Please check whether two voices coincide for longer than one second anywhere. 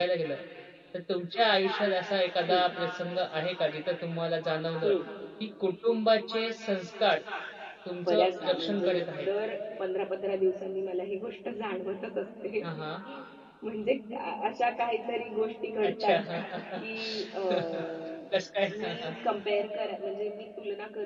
Yes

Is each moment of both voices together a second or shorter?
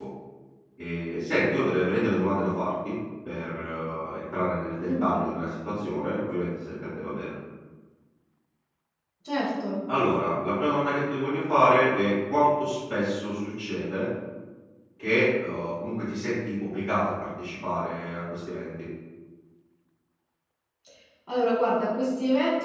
Yes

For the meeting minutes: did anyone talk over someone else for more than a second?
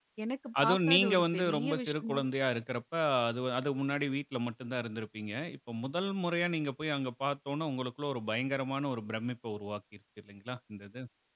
Yes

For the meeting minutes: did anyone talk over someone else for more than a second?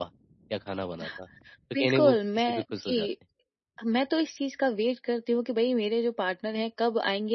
Yes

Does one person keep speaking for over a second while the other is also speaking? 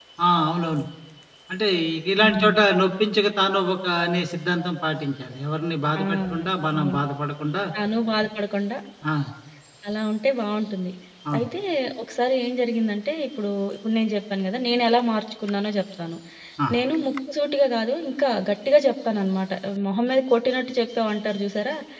No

